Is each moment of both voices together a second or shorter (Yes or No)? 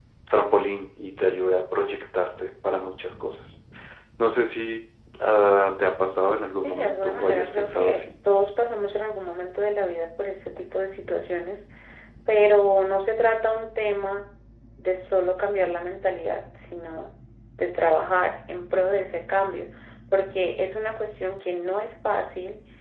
No